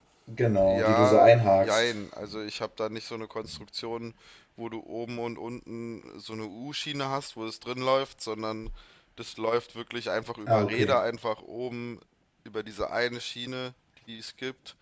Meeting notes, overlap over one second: present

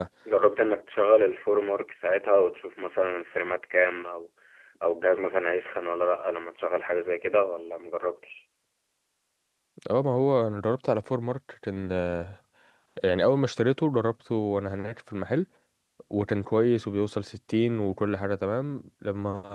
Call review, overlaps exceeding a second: none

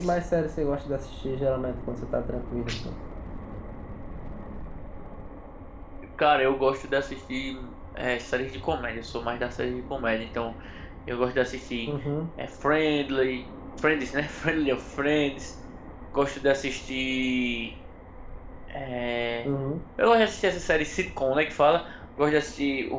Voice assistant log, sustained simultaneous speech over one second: none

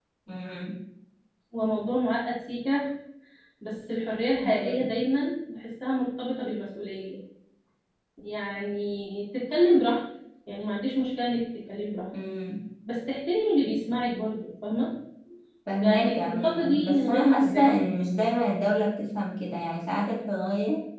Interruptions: present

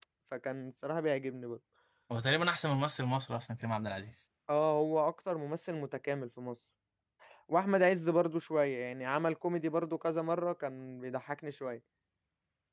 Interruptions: none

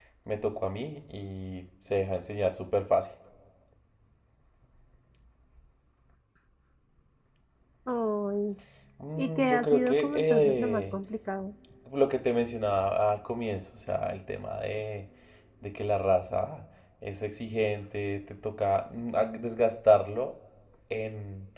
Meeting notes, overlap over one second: present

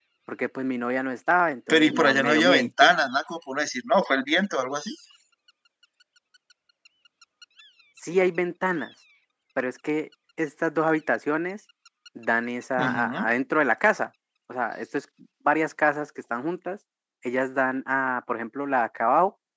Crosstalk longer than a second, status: present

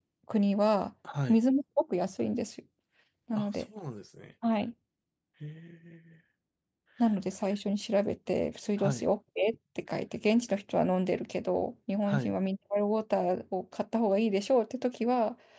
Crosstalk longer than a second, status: none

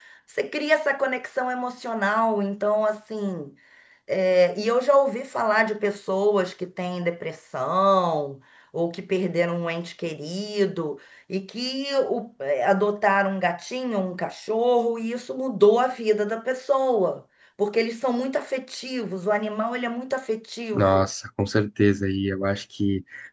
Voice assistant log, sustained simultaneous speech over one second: none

